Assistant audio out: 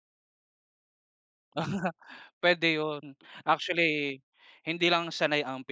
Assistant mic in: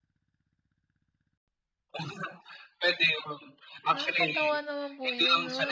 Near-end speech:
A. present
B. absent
A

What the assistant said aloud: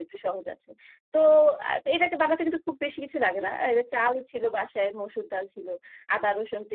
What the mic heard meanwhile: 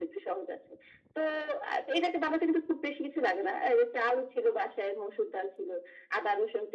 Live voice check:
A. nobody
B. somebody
A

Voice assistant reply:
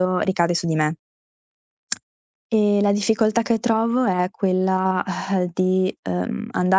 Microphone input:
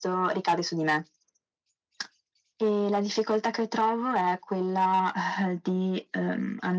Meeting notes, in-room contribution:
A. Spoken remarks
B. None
B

